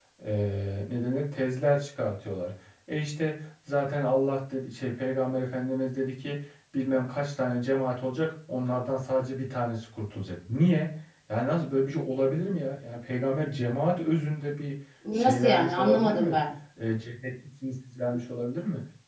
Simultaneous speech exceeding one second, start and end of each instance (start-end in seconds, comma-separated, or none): 15.1-16.4